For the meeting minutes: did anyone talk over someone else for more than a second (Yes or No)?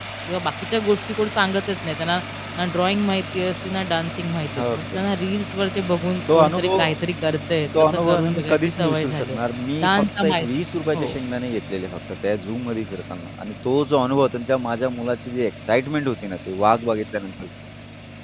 Yes